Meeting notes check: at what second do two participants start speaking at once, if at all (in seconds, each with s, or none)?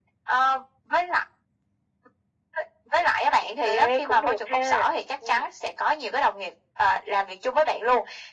3.6 s